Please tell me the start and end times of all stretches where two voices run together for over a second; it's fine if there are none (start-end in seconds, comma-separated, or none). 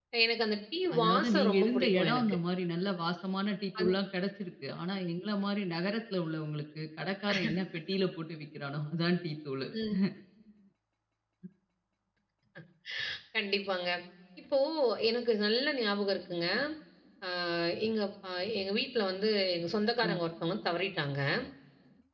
0.9-2.4